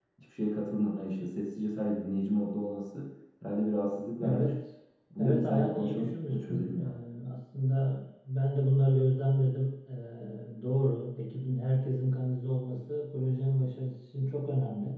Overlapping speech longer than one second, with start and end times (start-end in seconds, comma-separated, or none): 5.2-6.9